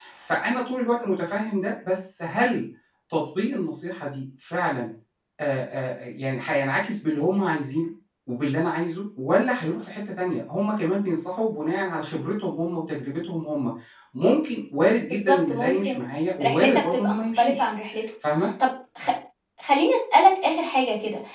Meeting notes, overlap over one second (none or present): present